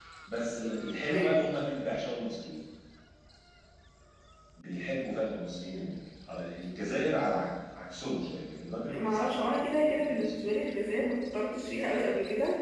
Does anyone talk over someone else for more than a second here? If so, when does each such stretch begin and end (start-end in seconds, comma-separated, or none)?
9.0-10.5